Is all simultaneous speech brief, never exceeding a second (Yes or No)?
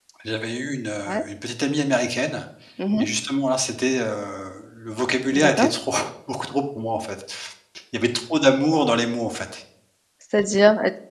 Yes